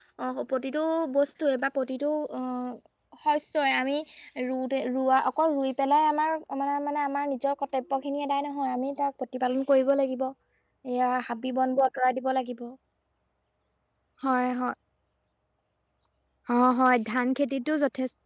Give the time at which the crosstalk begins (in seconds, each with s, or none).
none